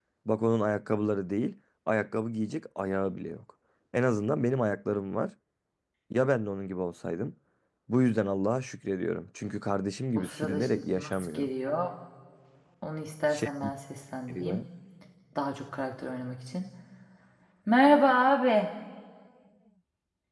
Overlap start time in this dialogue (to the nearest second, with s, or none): 10 s